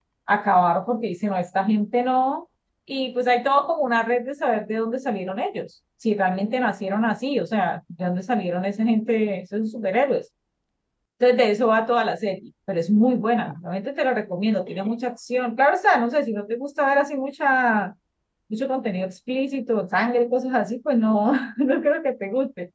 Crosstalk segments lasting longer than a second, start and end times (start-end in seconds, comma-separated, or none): none